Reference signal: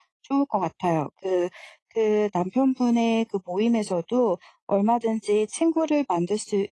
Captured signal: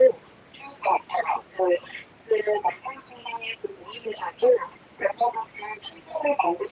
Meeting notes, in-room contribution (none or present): none